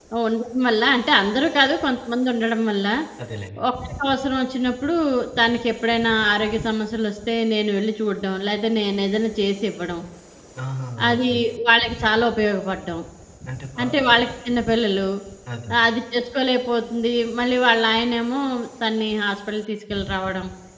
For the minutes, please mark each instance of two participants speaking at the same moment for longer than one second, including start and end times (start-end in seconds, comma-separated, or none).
none